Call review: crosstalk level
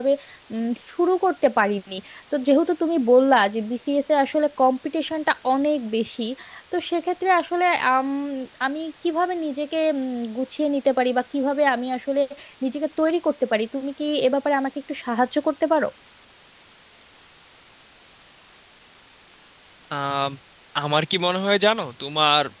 none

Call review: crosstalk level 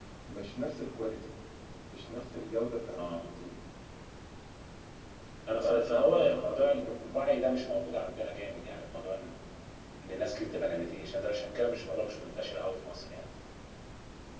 present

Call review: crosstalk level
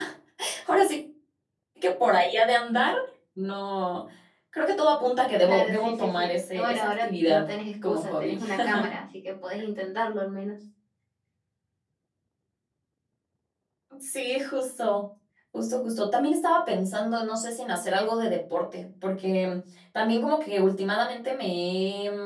present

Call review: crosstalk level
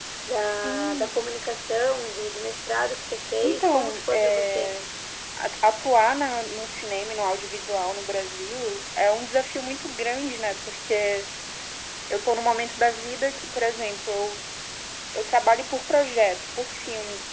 present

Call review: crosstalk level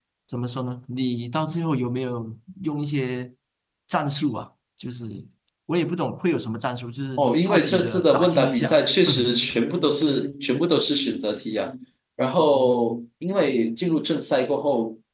present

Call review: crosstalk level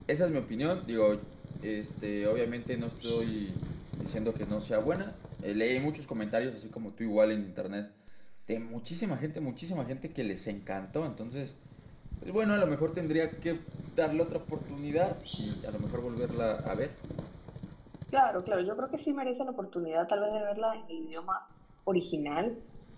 none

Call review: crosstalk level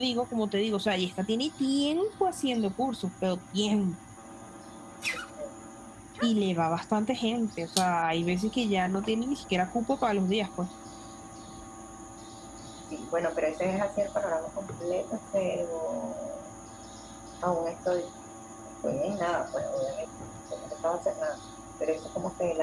none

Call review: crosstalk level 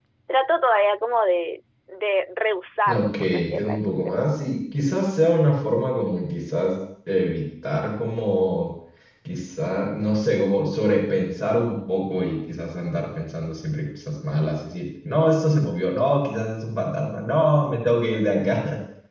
present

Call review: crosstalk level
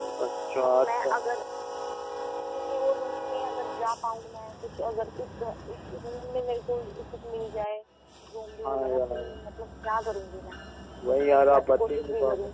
present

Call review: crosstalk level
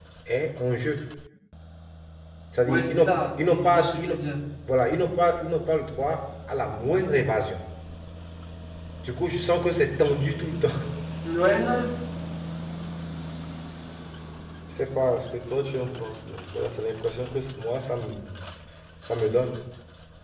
present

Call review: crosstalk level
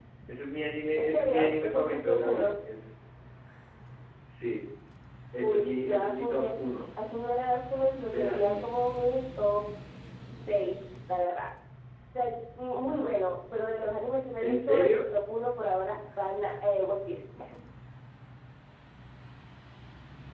present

